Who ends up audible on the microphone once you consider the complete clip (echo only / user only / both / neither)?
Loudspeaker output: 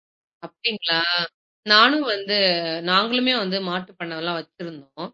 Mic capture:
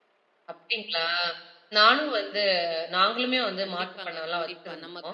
both